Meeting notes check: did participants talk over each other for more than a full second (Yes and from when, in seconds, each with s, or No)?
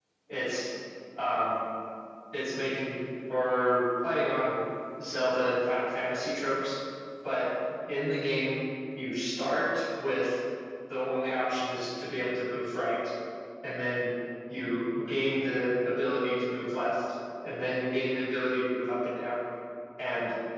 No